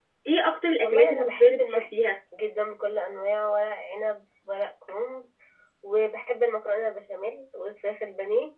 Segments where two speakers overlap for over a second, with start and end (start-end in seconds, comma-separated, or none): 0.8-2.1